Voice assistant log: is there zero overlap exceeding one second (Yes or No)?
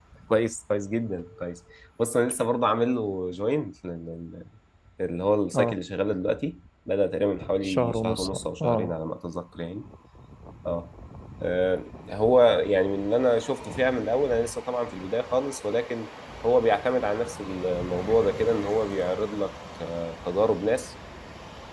No